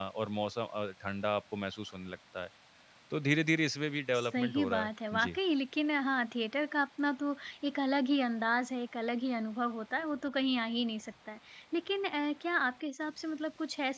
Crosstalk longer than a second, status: present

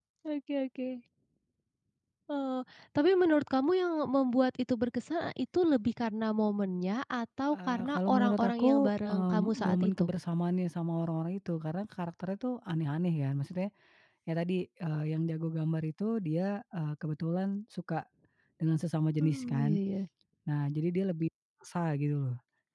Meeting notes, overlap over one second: present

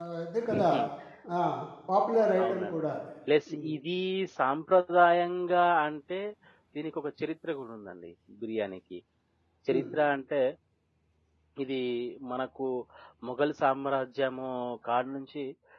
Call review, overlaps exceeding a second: none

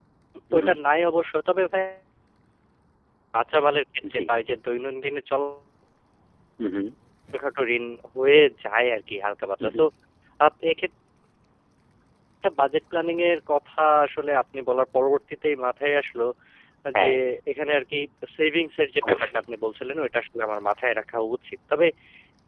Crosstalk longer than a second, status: none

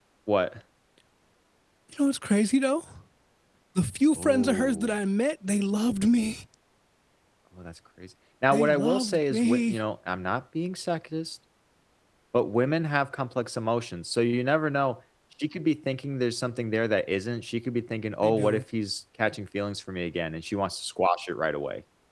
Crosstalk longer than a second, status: present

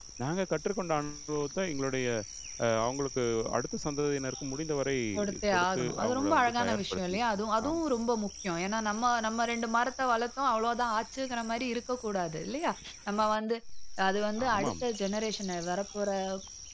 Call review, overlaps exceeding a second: present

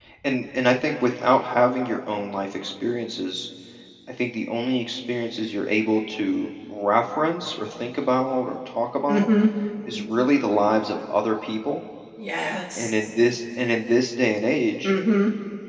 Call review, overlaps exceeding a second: none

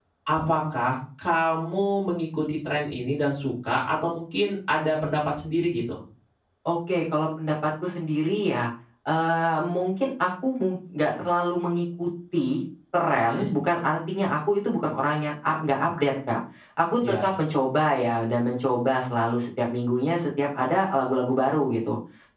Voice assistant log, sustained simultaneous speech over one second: none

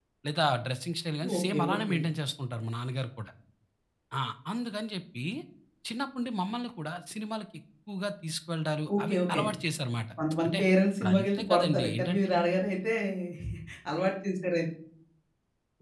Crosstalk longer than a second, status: present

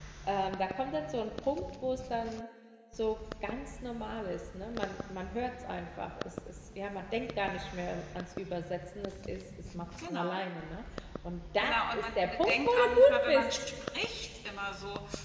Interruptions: present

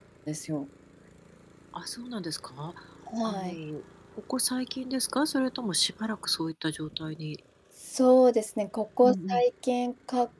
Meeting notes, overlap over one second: none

